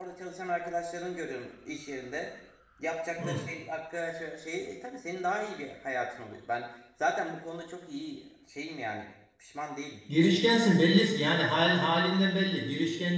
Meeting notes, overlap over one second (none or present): none